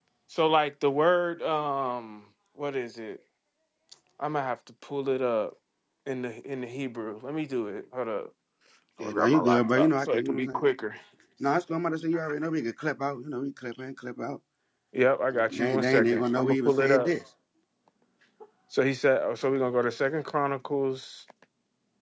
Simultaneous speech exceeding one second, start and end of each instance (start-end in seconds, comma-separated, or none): 9.0-10.6, 15.4-17.1